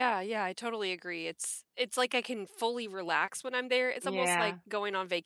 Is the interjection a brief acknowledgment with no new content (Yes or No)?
Yes